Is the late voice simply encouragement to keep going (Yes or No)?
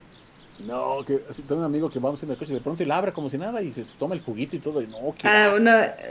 No